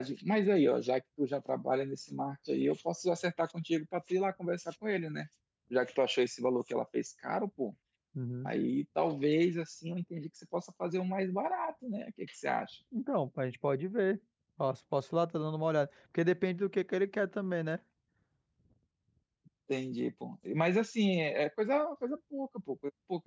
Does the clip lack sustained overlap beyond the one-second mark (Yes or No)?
Yes